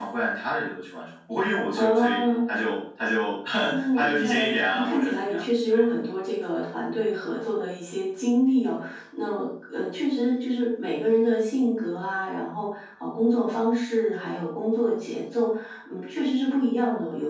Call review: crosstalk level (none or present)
present